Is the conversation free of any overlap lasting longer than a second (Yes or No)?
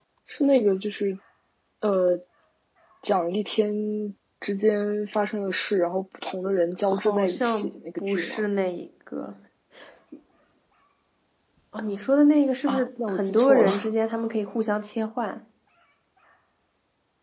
No